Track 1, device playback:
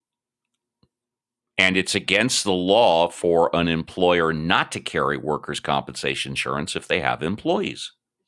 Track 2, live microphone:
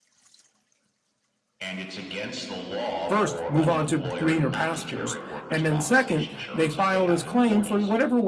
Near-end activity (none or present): present